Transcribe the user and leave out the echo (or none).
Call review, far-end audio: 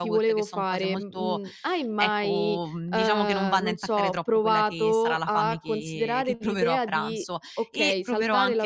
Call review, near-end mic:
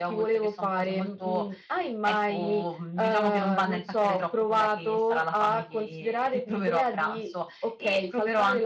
none